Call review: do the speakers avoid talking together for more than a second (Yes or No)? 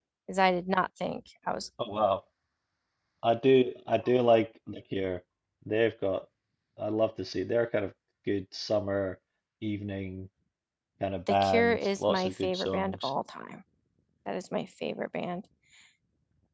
No